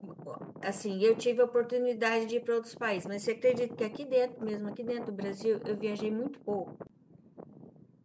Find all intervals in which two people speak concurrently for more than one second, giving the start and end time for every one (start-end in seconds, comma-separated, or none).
none